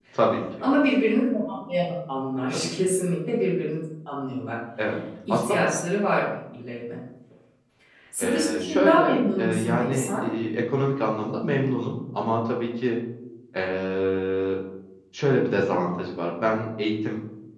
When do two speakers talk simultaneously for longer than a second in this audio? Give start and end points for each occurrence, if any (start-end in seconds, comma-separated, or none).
8.2-10.3